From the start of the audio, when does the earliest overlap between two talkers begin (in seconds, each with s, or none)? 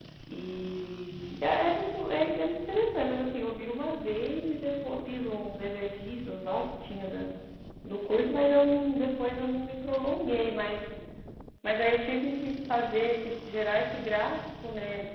none